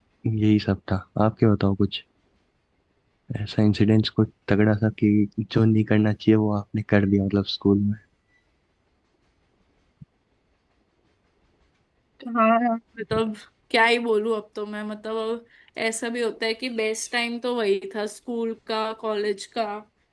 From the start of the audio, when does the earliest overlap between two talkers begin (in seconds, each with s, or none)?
none